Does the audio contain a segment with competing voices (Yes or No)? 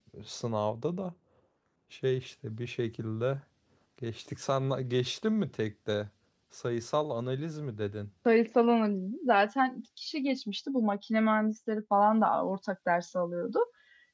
No